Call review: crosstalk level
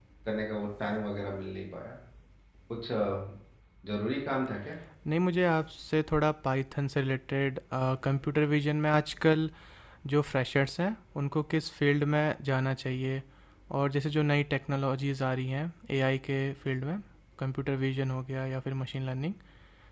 none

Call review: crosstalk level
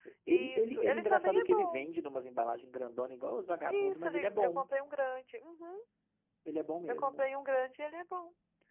present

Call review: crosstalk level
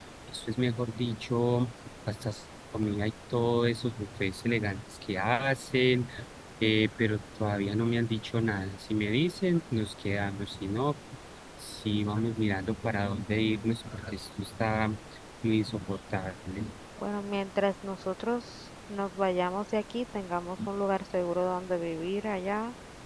none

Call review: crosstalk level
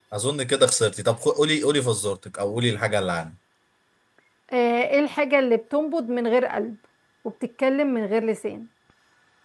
none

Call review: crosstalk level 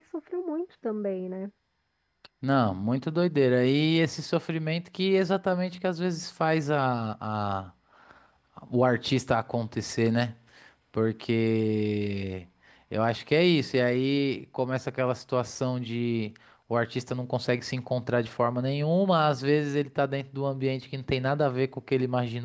none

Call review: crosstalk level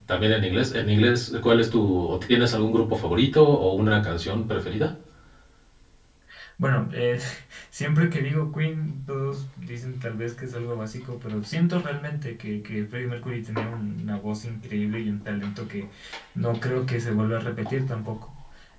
none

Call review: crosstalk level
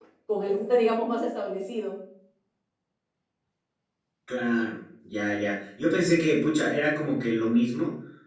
none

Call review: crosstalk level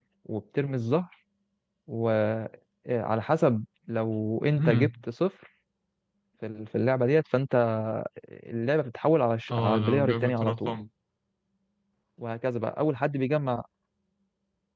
present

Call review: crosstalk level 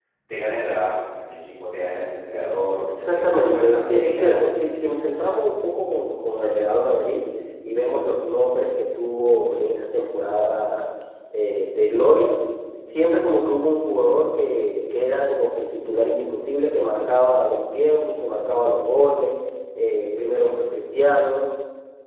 present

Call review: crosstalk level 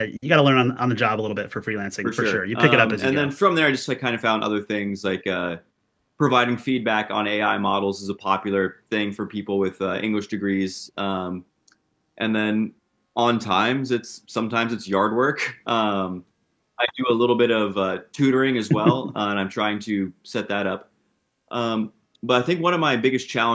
present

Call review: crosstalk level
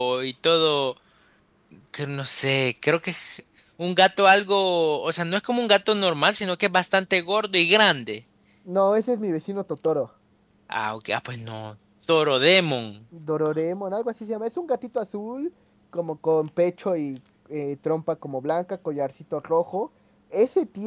none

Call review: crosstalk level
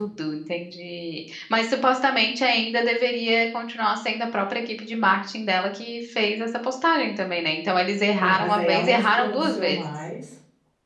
present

